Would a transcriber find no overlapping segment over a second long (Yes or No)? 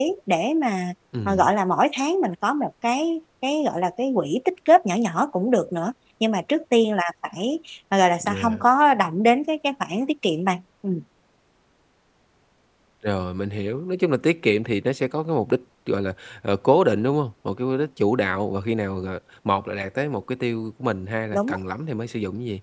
Yes